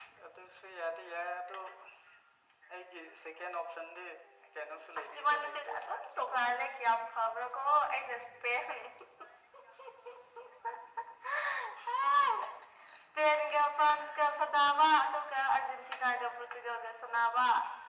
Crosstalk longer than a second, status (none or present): present